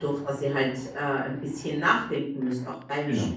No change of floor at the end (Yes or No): No